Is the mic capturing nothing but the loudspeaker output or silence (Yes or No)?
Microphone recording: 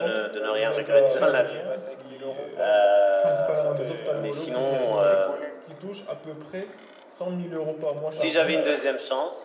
No